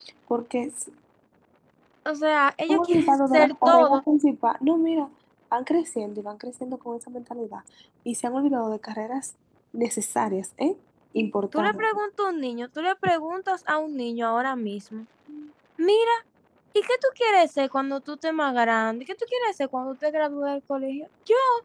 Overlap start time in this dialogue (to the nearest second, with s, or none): 3 s